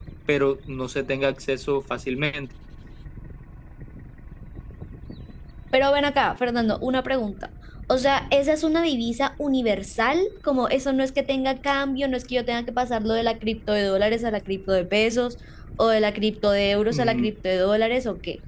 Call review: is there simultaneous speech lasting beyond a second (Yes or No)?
No